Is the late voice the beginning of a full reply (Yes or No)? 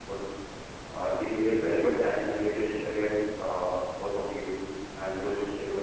No